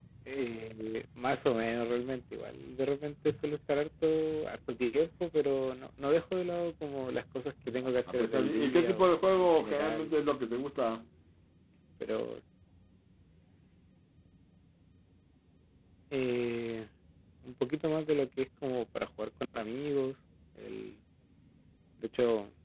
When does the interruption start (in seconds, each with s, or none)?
8.1 s